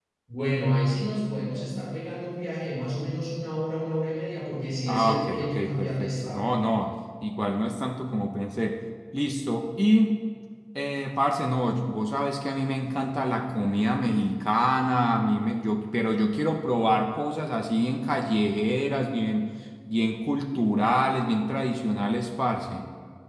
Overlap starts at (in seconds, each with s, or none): 4.9 s